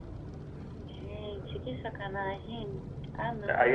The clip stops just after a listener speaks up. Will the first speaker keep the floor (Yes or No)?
No